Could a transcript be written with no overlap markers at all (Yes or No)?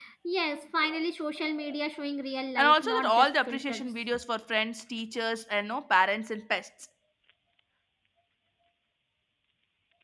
No